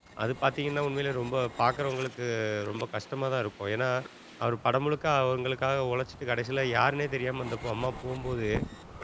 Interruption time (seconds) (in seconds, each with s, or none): none